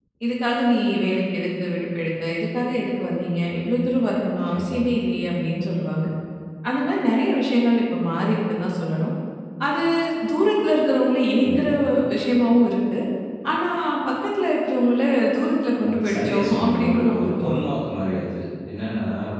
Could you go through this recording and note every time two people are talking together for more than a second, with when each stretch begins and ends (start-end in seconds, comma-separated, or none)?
15.8-17.6